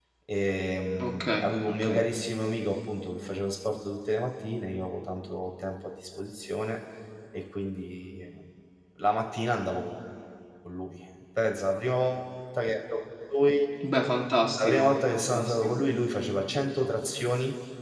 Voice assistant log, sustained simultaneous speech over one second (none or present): present